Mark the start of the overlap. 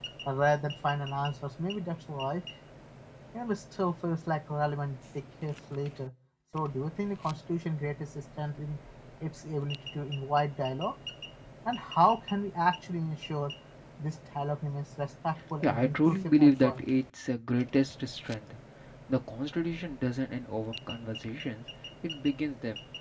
15.6 s

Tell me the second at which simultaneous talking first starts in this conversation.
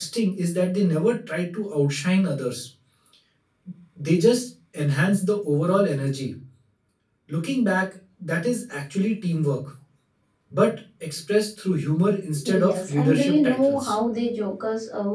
12.4 s

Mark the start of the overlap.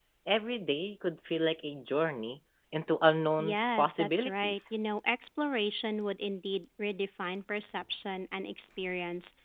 3.4 s

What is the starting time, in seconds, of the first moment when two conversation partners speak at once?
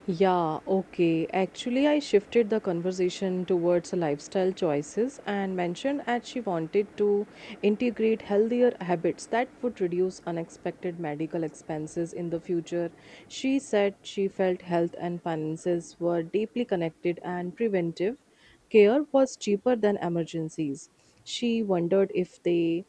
none

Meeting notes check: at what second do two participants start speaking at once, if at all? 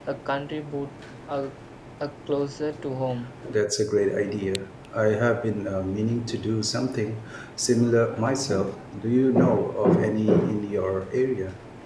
none

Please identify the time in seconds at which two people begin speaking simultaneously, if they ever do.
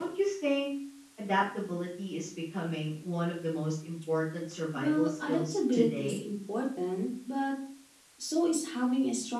4.8 s

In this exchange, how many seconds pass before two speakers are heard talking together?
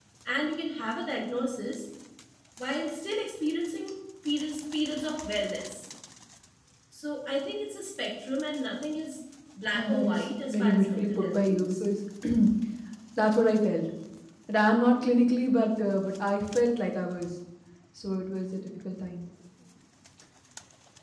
9.7 s

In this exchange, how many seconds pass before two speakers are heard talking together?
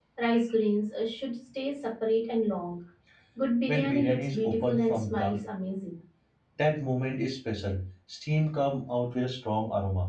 3.7 s

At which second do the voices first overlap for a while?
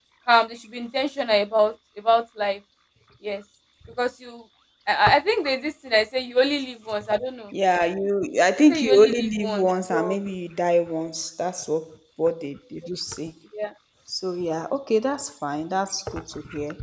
8.7 s

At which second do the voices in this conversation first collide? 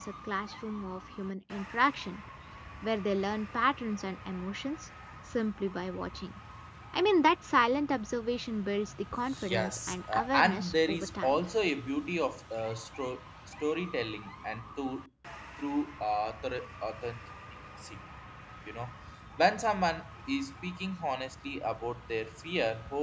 9.3 s

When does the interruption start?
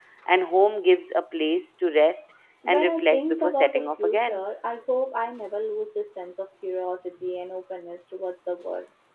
2.6 s

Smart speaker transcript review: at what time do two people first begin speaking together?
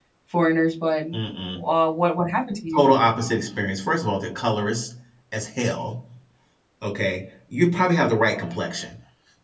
none

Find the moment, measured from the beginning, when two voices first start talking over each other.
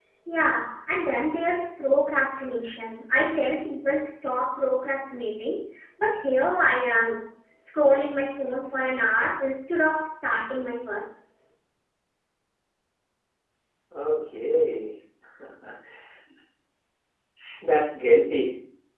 none

